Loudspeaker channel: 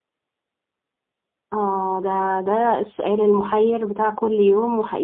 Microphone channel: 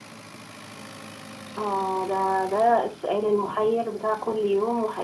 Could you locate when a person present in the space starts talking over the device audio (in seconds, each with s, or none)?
none